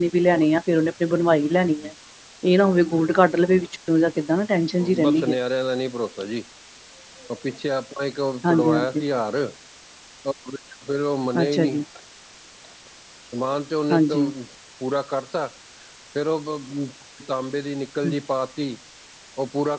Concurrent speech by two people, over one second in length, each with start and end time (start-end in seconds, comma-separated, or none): none